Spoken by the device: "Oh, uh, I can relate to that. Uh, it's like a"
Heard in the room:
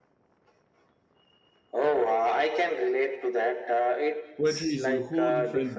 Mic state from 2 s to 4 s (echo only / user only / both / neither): echo only